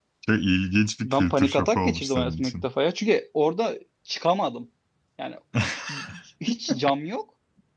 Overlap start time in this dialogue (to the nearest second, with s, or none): 1 s